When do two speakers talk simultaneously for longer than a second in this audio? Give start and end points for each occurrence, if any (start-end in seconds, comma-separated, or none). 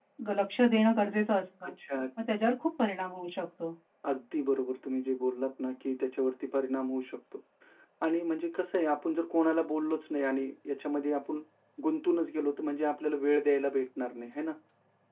none